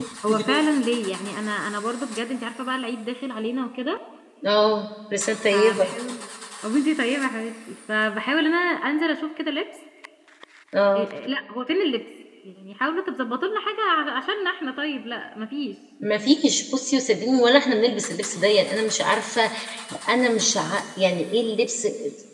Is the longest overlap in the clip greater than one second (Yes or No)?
No